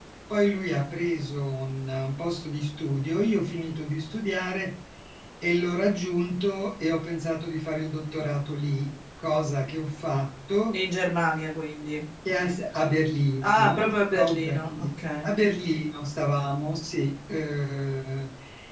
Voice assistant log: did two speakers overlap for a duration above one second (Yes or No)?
Yes